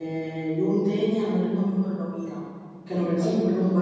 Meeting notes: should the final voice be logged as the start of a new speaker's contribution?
No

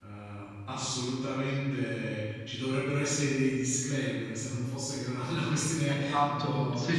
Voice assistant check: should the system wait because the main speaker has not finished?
No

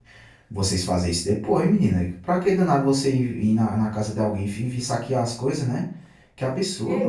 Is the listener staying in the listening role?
No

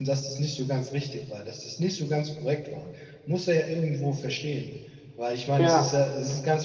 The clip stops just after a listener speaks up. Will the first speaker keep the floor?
Yes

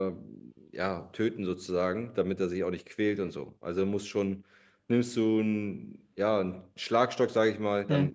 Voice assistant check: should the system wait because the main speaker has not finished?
Yes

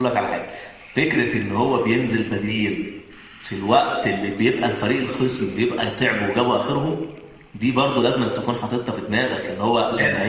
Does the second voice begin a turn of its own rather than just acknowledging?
No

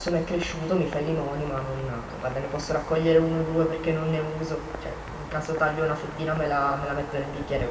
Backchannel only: Yes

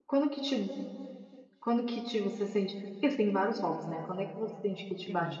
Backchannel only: Yes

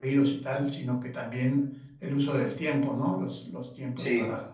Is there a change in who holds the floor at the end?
No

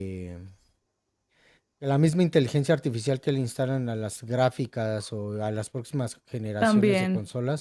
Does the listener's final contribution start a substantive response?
No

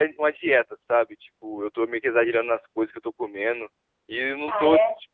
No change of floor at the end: Yes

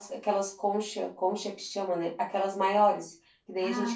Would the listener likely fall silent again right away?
Yes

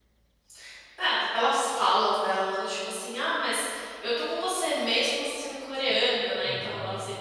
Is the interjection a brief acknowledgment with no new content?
Yes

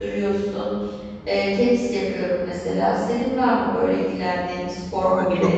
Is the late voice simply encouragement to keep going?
No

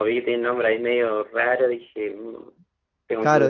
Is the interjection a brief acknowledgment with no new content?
No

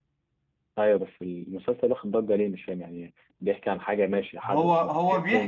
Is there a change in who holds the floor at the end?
Yes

